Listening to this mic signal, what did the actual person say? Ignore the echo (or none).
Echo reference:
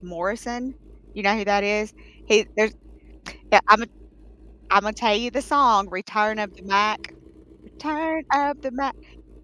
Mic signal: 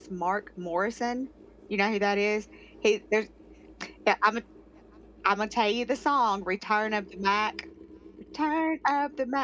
none